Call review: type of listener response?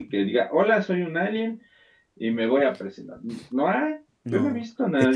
taking over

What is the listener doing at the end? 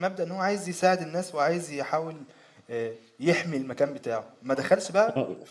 listening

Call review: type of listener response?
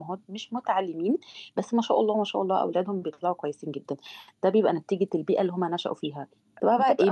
listening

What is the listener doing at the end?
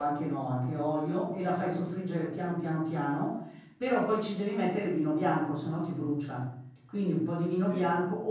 listening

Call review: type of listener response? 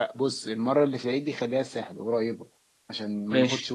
listening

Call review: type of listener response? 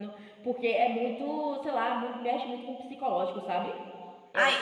taking over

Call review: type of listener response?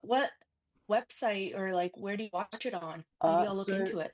taking over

